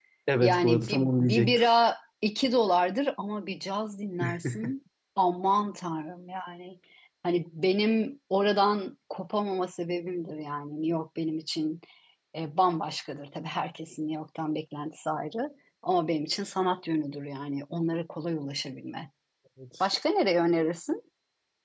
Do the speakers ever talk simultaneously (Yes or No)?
Yes